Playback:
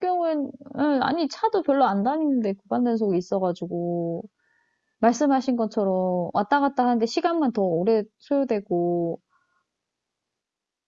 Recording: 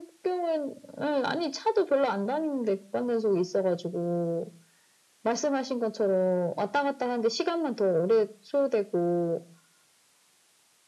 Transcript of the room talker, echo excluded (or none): none